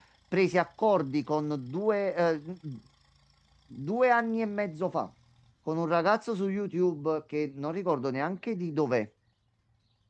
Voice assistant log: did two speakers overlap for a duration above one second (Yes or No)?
No